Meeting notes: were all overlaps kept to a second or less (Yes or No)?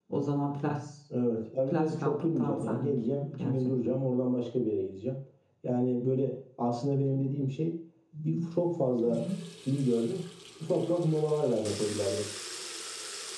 No